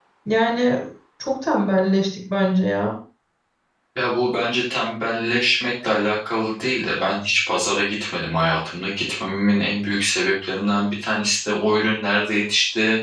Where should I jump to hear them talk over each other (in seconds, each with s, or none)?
none